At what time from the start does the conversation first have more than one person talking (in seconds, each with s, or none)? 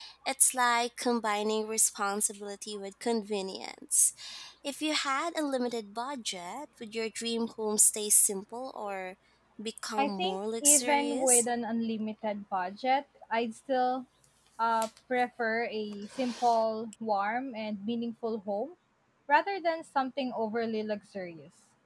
10.0 s